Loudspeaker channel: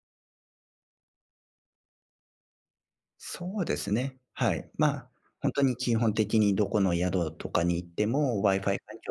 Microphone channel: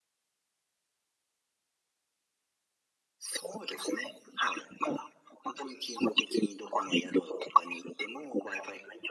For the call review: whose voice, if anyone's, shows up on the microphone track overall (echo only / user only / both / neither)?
echo only